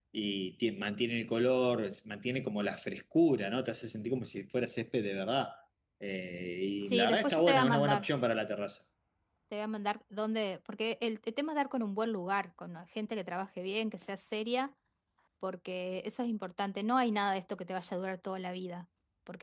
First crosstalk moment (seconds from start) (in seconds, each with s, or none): 6.8 s